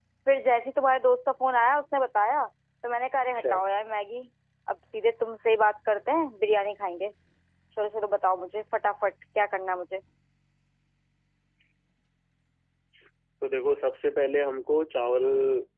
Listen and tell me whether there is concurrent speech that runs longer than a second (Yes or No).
No